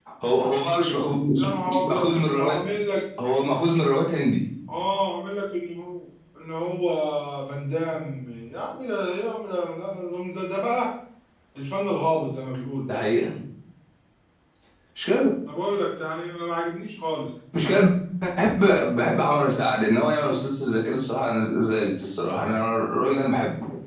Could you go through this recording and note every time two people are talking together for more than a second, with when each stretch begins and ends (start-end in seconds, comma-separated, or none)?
1.4-2.6